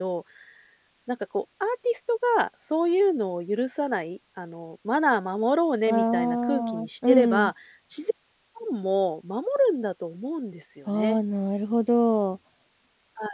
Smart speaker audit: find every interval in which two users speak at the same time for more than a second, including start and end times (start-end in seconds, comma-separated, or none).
5.9-7.5